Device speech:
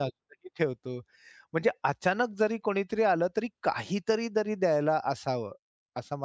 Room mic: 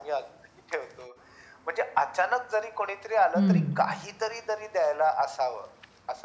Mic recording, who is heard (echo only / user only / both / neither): both